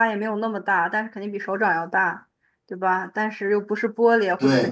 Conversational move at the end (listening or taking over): listening